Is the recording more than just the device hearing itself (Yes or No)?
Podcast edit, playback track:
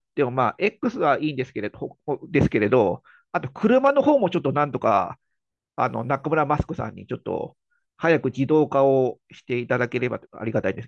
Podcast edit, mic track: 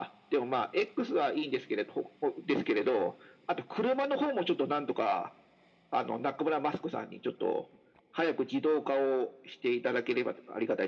No